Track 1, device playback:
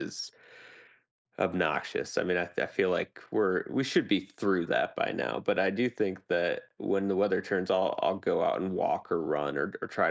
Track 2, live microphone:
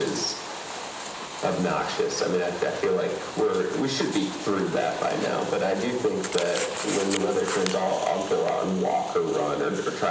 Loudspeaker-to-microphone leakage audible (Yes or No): Yes